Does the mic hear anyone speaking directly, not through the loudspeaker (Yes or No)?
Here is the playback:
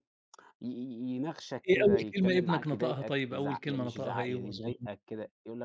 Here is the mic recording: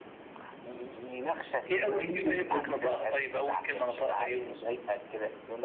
Yes